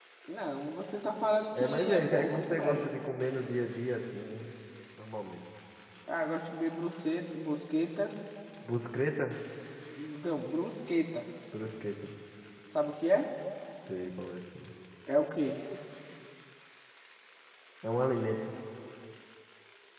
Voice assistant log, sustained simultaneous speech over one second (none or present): present